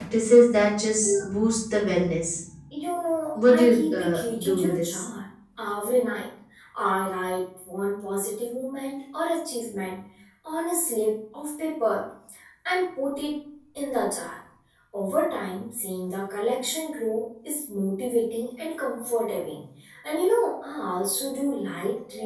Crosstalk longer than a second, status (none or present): present